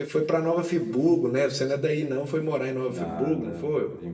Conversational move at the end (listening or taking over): taking over